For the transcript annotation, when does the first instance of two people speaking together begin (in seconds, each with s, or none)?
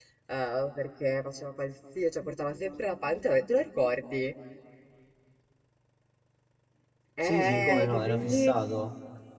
7.2 s